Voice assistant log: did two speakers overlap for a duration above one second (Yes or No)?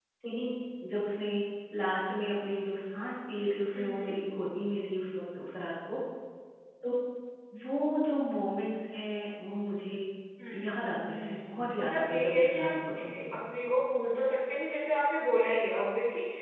Yes